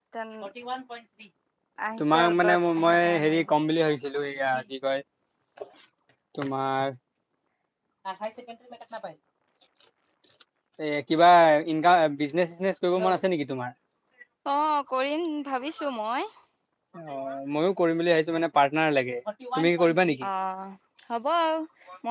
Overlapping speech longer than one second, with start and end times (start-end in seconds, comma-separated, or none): 2.0-3.5